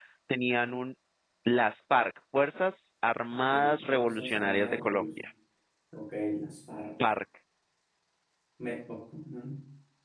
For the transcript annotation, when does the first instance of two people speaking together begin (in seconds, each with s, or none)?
3.5 s